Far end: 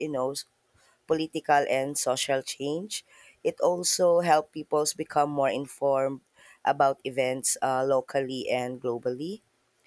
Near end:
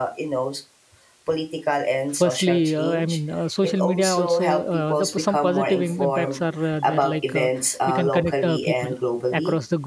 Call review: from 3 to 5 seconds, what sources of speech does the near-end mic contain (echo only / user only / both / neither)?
both